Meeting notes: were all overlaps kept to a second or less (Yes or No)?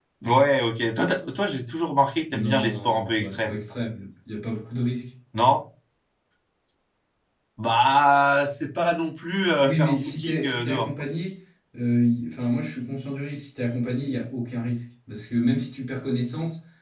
No